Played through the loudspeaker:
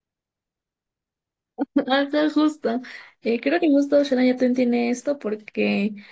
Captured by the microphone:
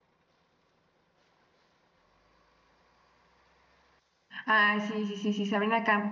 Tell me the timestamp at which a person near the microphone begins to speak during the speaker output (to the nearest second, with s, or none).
4 s